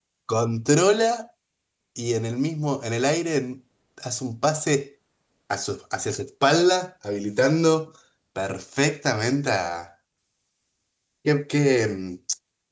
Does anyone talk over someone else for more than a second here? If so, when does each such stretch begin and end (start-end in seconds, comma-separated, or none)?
none